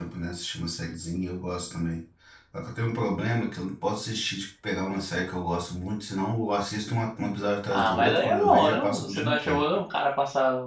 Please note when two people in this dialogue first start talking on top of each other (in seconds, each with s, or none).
7.7 s